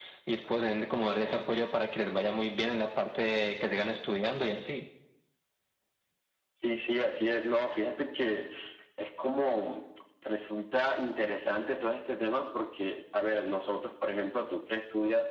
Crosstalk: none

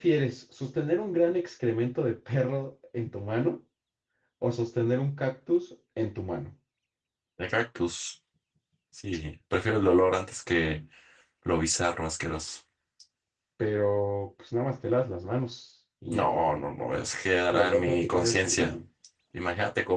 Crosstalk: present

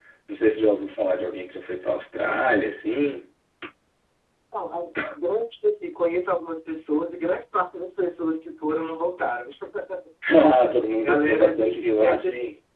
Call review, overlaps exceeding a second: present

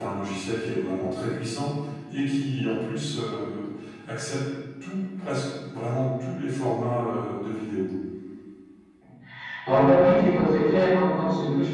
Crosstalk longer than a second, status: none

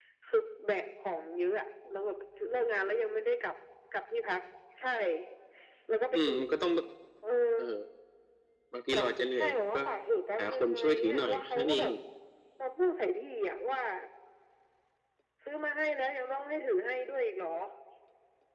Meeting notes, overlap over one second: present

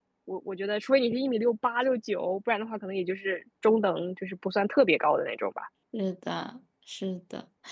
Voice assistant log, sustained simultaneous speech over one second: none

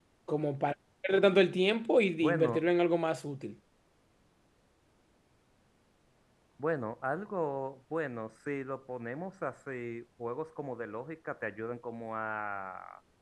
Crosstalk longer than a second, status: none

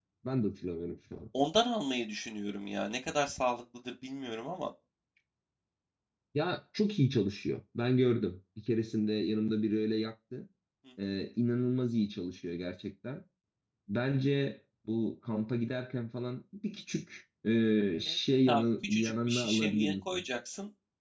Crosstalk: present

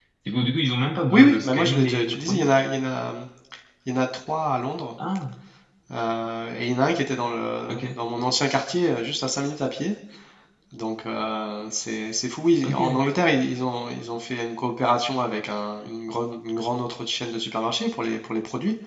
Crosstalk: present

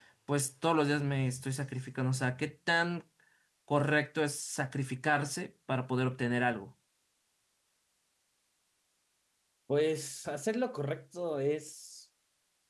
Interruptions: none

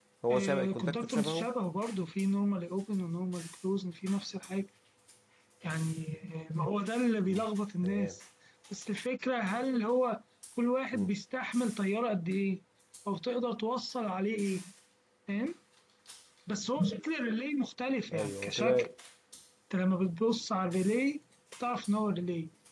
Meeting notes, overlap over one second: present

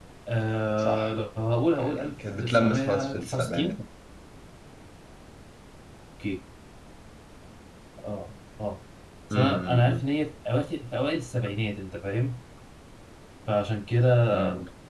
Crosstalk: present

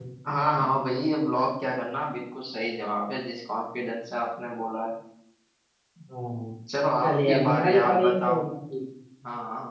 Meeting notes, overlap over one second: present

